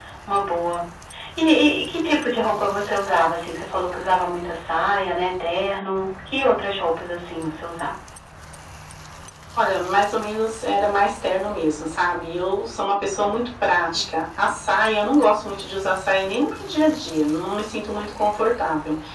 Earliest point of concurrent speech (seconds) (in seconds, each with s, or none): none